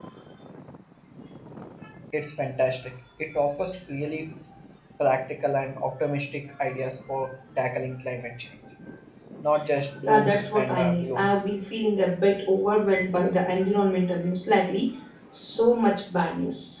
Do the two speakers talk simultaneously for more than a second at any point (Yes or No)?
Yes